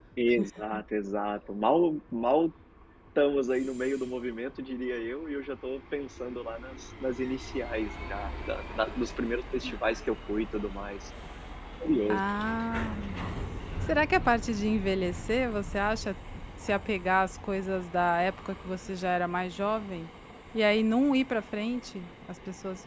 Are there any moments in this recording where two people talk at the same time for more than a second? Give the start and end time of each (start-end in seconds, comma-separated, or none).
none